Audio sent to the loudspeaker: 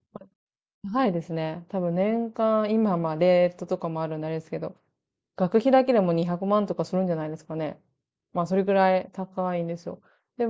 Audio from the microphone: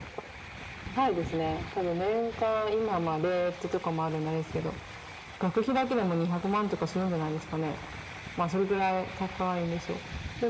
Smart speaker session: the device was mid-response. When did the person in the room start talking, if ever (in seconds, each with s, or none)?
none